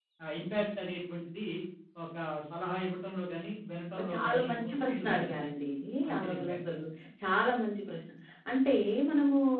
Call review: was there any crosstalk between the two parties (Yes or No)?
Yes